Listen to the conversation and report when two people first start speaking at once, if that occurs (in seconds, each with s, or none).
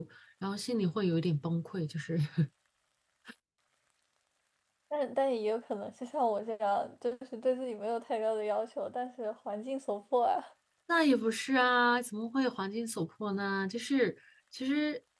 none